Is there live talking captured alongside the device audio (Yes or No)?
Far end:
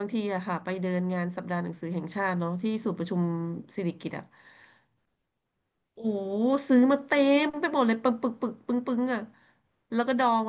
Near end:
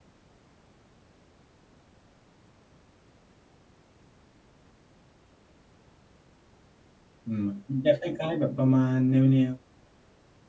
Yes